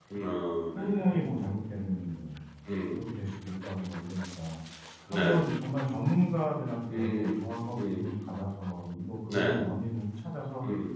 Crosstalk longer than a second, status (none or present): none